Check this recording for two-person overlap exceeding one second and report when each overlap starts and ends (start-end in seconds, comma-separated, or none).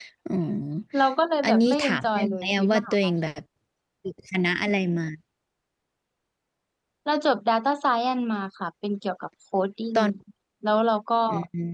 1.4-3.1